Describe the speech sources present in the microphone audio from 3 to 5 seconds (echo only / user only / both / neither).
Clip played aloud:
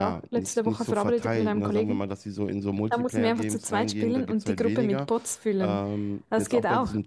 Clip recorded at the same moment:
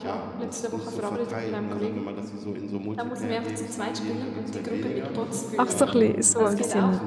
echo only